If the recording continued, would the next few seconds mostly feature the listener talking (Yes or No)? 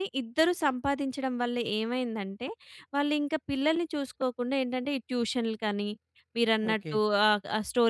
No